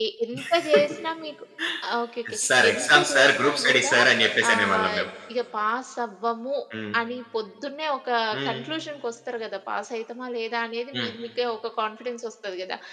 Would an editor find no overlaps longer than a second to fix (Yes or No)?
No